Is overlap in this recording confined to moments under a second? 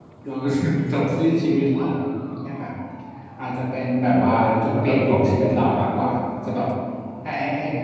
No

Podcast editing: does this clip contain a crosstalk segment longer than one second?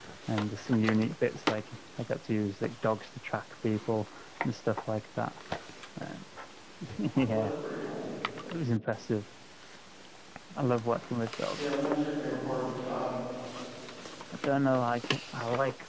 No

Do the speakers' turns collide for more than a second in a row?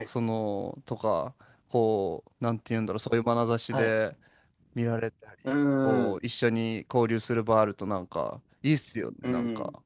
No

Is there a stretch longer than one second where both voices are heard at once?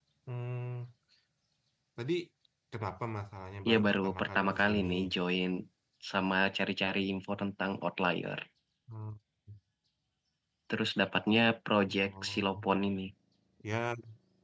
Yes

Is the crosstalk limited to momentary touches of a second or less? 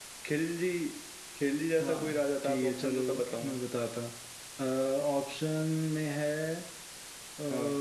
No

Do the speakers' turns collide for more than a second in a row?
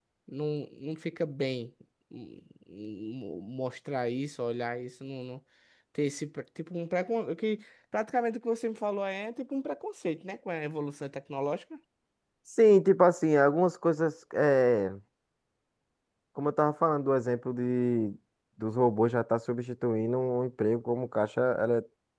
No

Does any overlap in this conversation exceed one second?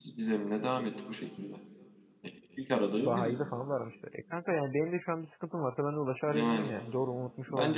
No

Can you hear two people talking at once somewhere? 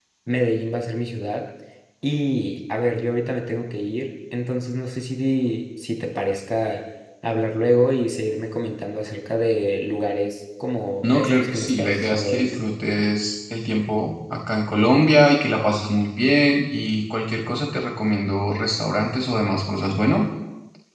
Yes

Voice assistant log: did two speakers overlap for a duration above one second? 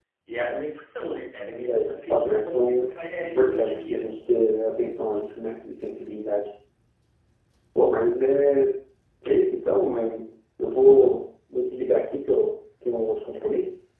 Yes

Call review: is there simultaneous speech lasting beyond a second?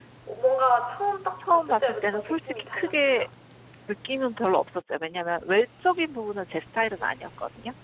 Yes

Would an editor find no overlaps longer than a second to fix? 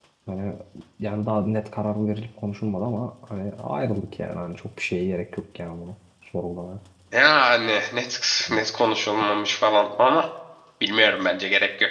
Yes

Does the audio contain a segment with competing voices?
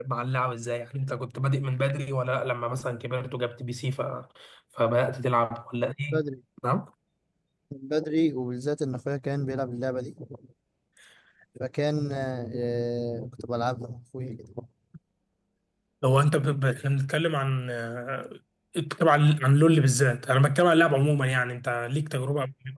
No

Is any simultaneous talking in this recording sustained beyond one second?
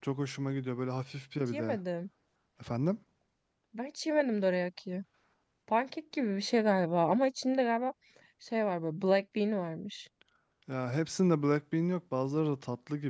No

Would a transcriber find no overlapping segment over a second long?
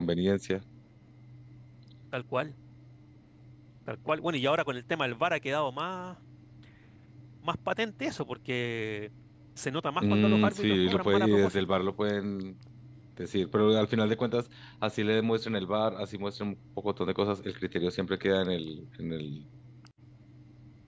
No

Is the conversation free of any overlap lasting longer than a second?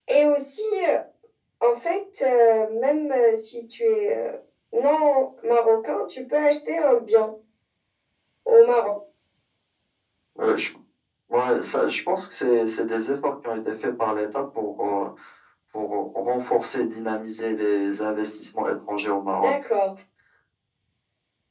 Yes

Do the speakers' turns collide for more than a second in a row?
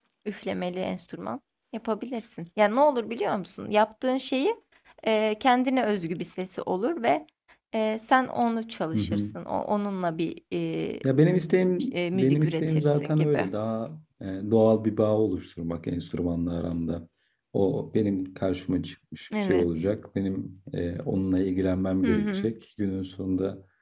Yes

